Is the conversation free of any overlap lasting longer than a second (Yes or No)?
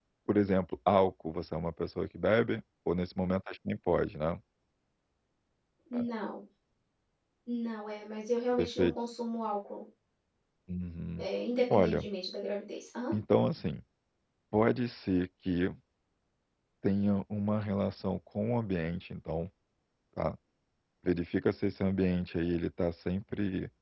Yes